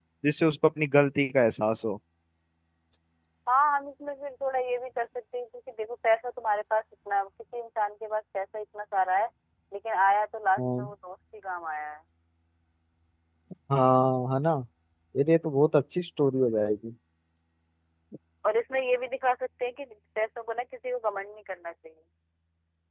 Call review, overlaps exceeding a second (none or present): none